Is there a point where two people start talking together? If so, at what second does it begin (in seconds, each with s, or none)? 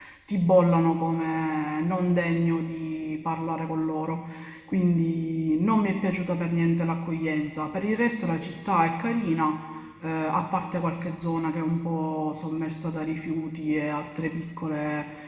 none